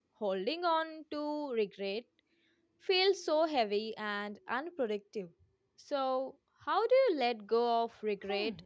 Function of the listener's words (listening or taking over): taking over